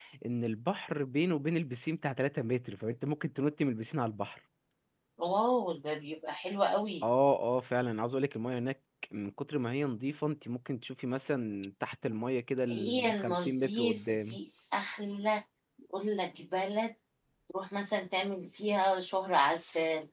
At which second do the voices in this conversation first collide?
13 s

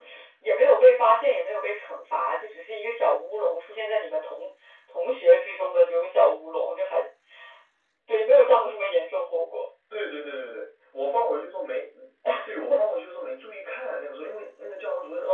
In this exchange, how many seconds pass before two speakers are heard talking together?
none

